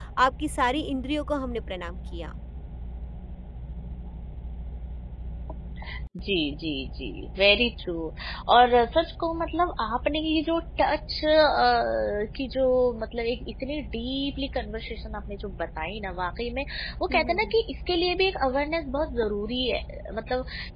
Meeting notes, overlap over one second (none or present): none